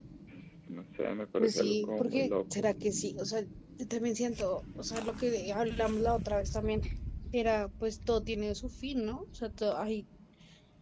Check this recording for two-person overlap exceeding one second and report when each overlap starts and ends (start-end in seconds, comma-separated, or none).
1.4-2.7